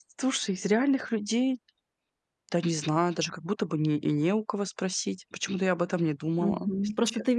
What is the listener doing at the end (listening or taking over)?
taking over